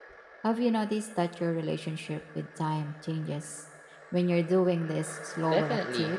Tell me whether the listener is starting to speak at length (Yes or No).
Yes